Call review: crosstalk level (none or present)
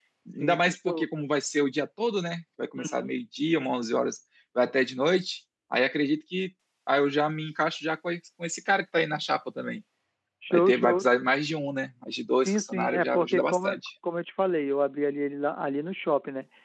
present